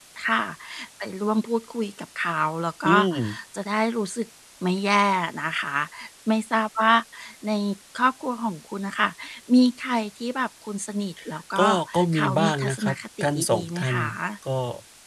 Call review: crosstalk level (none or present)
present